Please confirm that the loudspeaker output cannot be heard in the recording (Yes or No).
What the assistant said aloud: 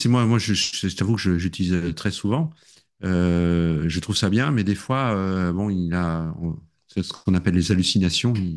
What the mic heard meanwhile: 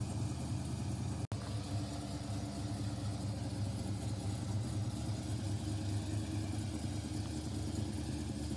Yes